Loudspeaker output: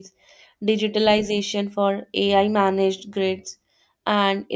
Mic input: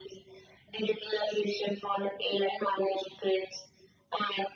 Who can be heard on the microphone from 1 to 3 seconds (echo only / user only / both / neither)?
echo only